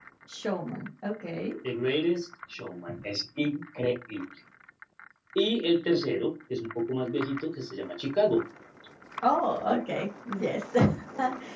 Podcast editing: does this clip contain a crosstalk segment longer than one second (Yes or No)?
No